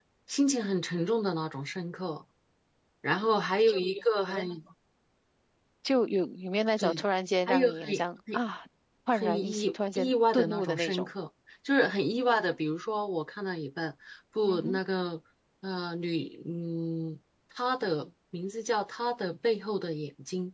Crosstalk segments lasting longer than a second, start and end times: 9.1-11.1

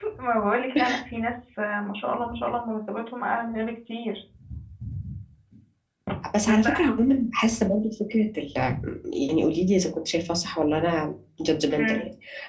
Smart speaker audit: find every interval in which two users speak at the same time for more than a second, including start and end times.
none

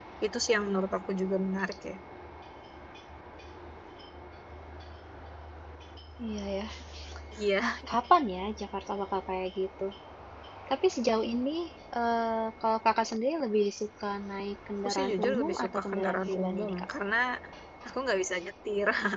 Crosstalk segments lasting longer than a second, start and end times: 14.8-16.8

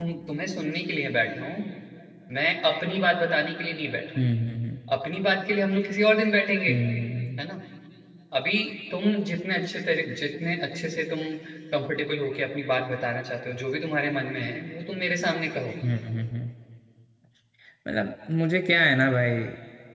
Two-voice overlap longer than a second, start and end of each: none

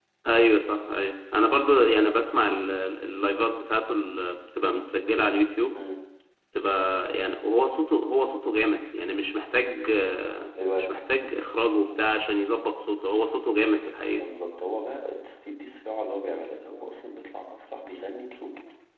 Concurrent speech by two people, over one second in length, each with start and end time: none

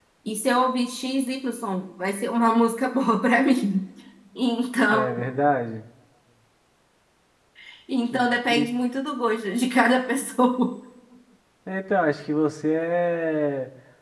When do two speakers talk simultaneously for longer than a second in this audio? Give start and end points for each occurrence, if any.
none

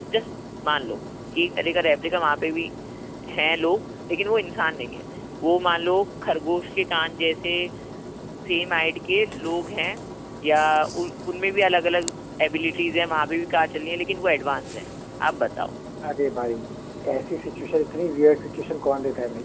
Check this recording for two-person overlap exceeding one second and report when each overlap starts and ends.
none

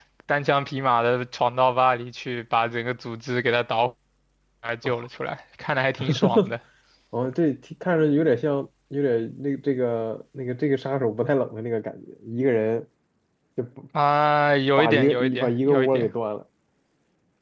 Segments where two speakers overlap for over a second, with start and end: 14.8-16.1

